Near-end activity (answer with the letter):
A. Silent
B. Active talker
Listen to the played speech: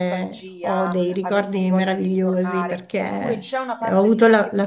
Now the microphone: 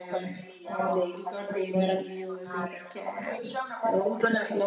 A